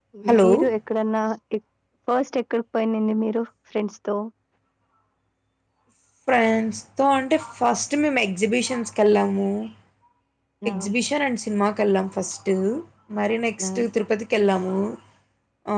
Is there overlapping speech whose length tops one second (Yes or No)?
No